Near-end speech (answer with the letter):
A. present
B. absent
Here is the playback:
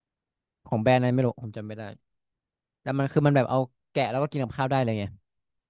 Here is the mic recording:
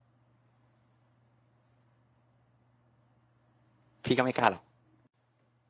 A